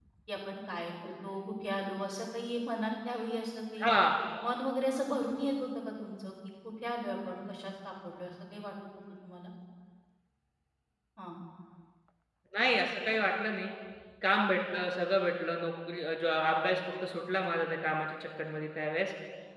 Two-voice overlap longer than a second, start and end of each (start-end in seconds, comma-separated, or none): none